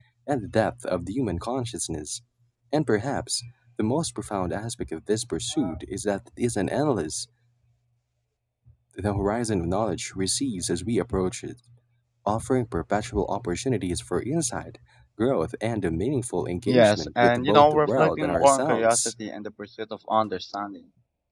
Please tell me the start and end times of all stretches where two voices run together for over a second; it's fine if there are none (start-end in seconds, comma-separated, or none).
16.7-19.0